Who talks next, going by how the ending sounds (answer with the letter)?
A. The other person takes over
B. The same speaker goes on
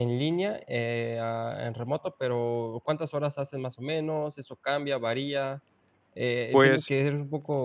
B